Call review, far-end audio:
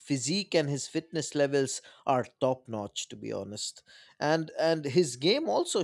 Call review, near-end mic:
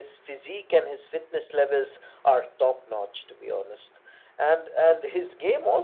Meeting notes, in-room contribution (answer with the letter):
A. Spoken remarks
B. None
B